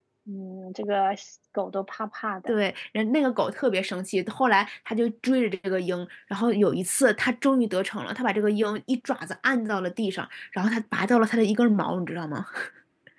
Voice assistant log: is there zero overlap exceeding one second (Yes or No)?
Yes